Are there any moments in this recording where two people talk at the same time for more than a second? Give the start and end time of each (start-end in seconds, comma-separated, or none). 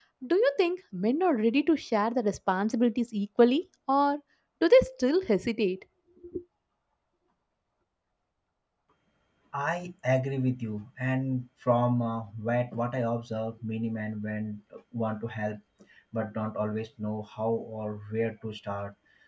none